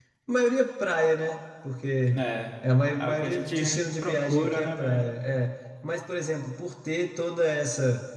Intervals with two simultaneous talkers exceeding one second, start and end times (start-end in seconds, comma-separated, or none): 3.0-5.0